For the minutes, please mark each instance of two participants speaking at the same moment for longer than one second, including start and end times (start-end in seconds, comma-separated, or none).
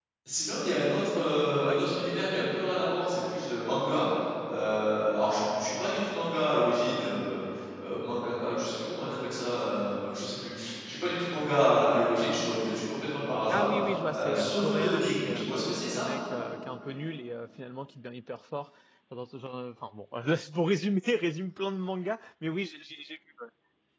14.1-16.1